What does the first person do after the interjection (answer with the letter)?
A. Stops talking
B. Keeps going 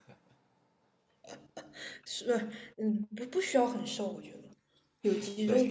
A